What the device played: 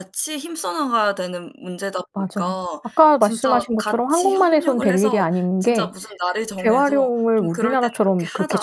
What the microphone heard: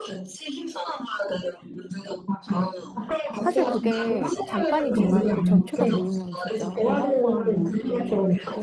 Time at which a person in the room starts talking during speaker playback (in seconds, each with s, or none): 3.4 s